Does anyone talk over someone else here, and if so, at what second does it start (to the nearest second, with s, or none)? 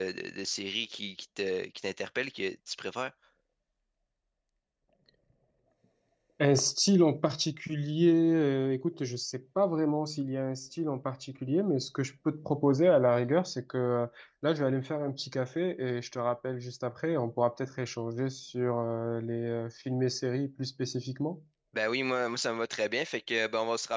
none